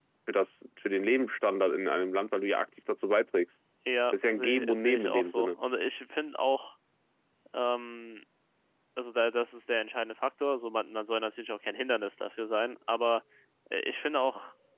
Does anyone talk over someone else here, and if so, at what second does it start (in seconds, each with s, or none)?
4.1 s